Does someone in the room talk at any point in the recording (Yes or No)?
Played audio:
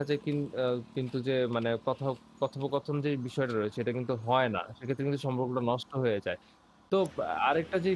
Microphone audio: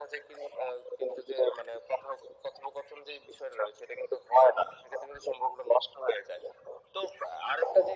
No